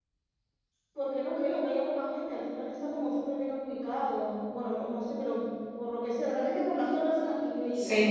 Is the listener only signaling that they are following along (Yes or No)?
No